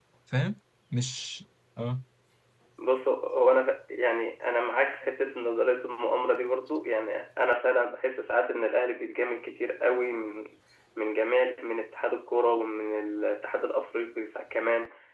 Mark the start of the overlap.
none

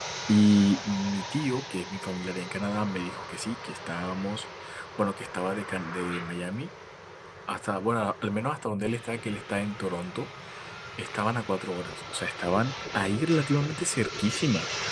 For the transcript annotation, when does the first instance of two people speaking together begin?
none

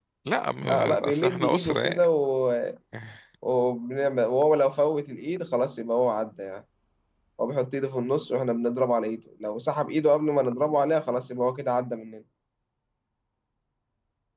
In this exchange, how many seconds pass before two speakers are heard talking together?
1 s

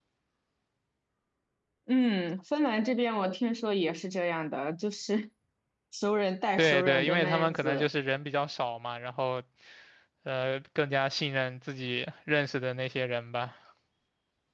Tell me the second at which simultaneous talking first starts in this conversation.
7 s

